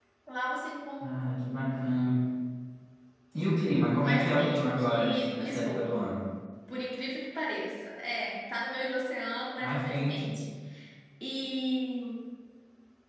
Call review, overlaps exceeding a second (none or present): present